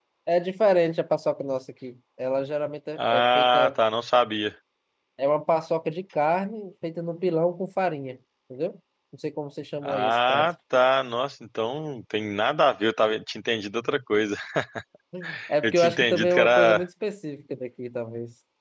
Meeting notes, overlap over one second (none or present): present